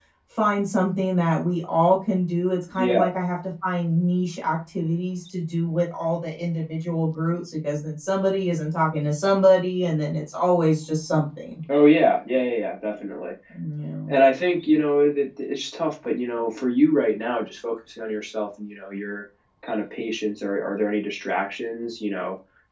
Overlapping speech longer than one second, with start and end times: none

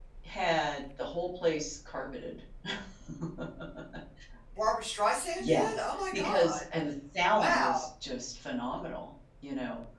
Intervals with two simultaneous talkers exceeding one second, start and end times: none

